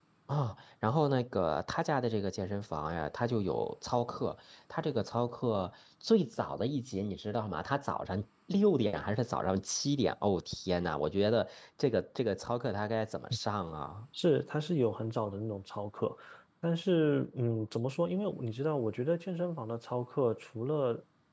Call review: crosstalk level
none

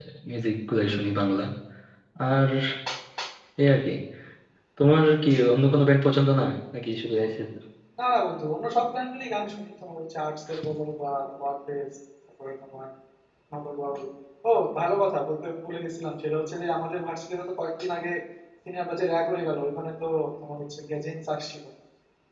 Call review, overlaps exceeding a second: none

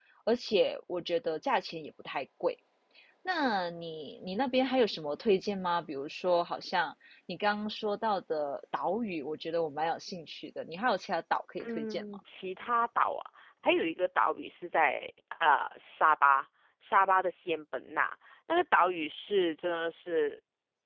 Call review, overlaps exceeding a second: none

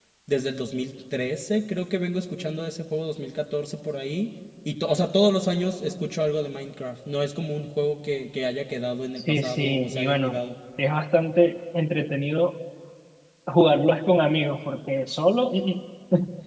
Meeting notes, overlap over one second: present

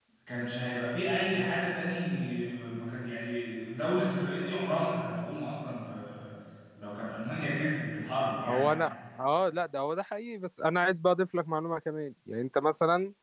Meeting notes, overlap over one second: none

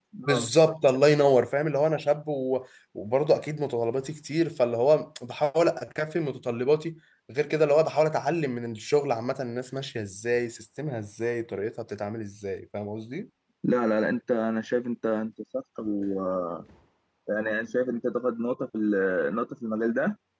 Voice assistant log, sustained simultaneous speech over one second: none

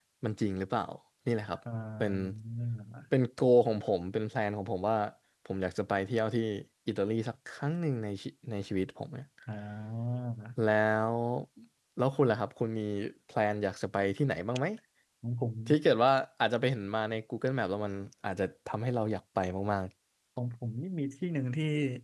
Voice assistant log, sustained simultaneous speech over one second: none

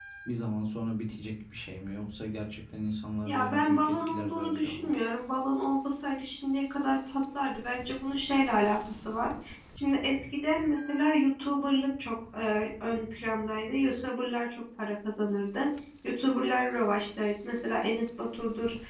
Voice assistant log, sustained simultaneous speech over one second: present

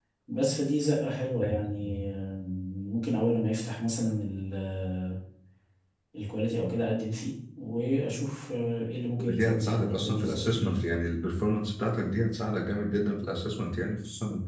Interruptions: present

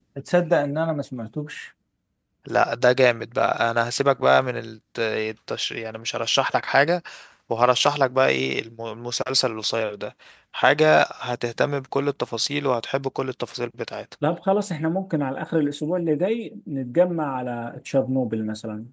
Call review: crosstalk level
none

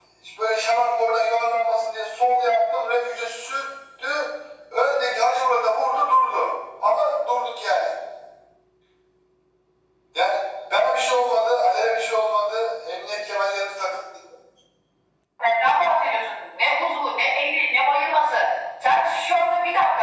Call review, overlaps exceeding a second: none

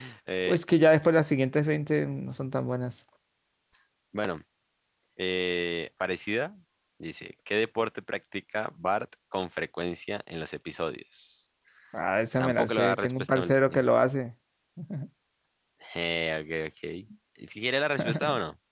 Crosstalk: present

